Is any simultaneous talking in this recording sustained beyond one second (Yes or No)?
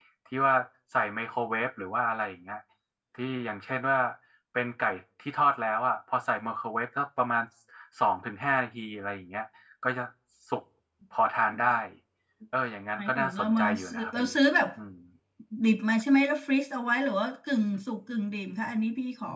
Yes